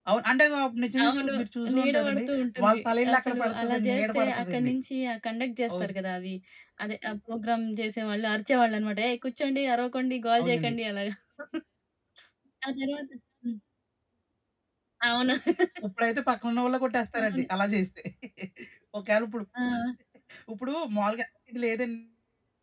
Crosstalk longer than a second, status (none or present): present